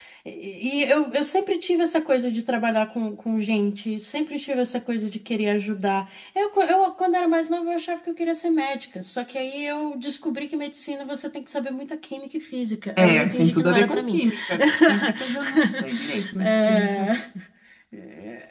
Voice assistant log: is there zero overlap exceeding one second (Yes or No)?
No